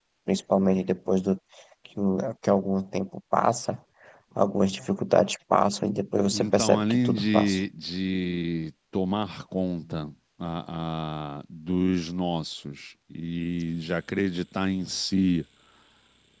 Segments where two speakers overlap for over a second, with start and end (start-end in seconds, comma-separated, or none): 6.3-7.7